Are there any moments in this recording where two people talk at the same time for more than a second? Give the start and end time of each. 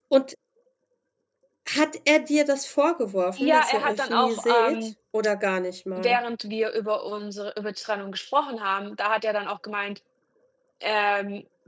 3.4-4.9

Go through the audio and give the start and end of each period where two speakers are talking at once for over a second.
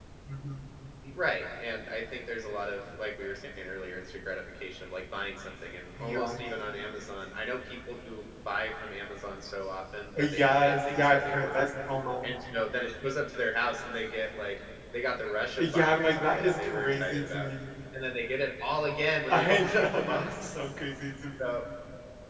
10.2-11.7, 15.6-17.5, 19.3-20.6

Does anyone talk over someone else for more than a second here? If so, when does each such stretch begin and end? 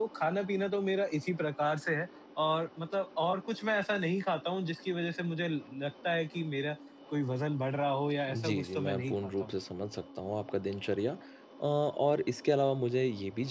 8.3-9.6

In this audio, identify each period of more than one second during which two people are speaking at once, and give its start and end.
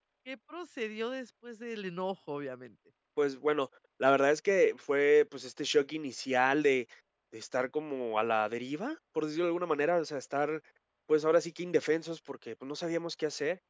none

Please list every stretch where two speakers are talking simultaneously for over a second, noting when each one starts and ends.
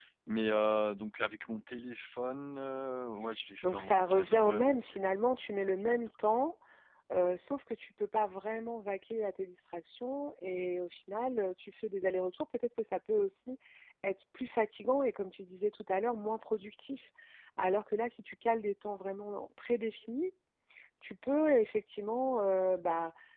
3.6-5.0

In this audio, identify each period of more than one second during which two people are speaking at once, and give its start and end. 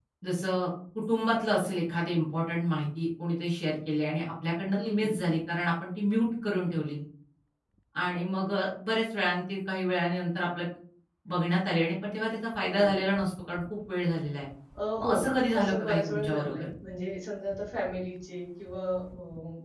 15.0-16.7

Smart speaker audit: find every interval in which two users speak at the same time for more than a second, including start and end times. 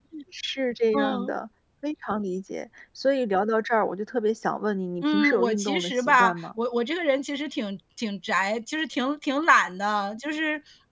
5.0-6.4

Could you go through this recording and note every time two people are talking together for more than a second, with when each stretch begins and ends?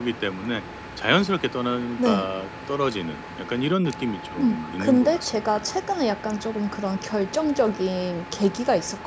4.4-5.6

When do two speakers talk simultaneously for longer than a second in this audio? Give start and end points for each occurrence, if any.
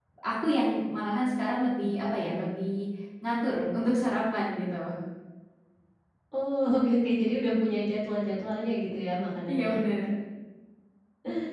none

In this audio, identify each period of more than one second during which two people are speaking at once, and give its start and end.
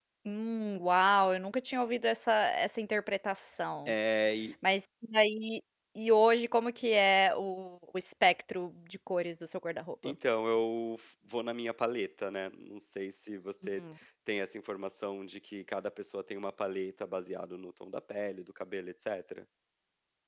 none

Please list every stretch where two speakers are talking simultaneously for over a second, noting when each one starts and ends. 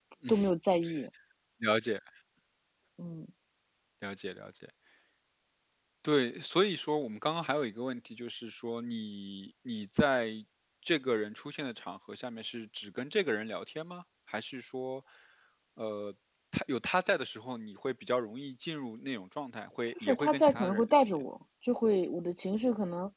19.9-21.1

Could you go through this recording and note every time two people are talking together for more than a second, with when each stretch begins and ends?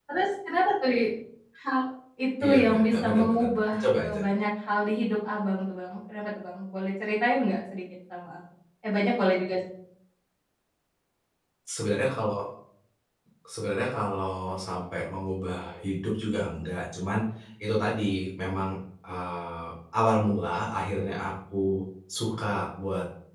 2.4-4.2

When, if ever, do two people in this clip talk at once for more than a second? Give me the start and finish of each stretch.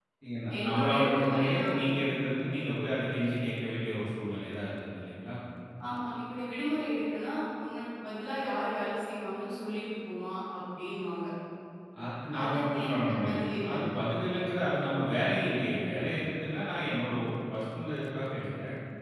0.6-1.8, 12.4-13.7

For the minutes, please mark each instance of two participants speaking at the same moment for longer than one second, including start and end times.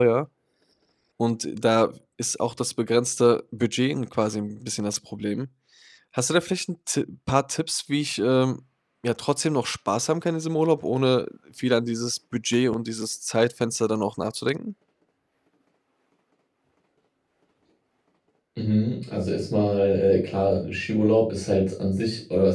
none

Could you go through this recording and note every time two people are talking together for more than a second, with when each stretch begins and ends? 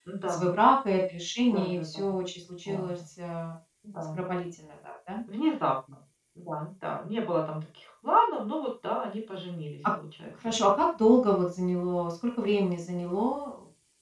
none

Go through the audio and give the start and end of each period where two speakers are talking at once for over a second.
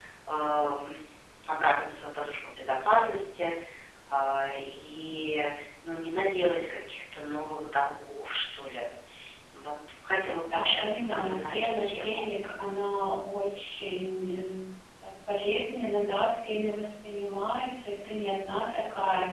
10.5-12.3

